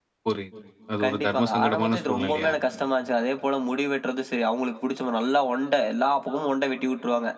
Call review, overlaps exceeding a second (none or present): present